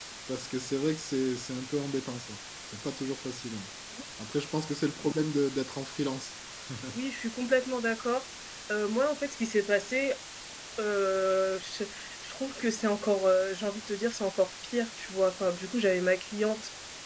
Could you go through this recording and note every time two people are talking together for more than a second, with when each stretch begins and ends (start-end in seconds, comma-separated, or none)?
none